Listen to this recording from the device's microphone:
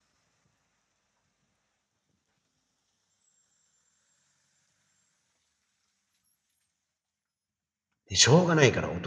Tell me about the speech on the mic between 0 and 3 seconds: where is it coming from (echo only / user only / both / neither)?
neither